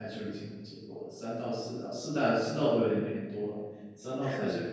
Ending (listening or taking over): listening